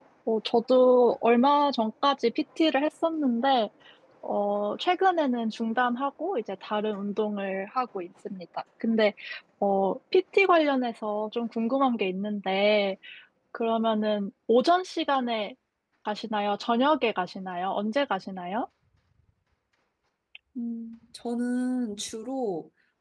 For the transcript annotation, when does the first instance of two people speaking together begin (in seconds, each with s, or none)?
none